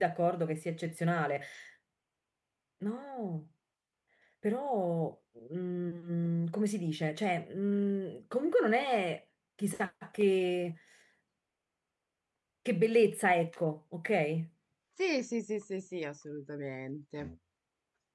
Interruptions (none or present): none